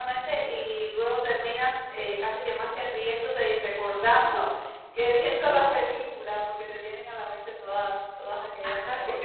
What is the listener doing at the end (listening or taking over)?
taking over